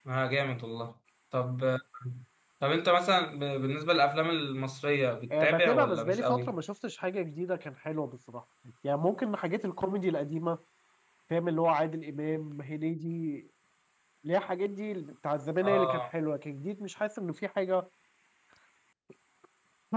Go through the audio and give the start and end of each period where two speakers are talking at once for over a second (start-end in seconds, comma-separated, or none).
5.3-6.5